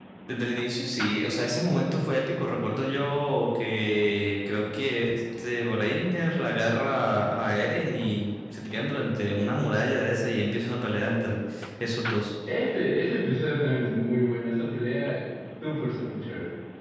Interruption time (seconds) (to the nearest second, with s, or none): none